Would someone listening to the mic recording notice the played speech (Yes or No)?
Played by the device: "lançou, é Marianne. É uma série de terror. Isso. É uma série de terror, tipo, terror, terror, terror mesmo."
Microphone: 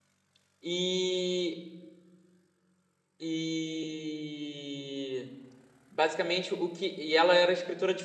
No